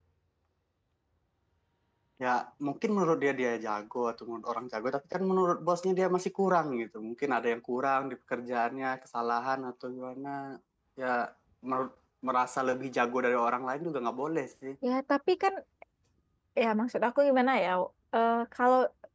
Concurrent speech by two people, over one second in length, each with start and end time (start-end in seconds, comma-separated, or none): none